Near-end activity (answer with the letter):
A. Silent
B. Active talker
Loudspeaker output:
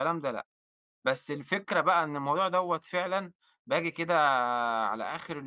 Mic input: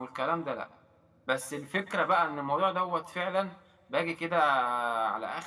A